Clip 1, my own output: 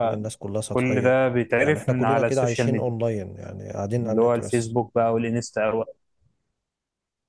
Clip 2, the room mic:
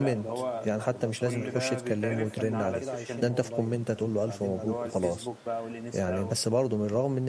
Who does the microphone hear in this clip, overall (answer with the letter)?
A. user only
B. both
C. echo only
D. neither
B